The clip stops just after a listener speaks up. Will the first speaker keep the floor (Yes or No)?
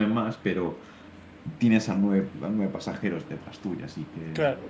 No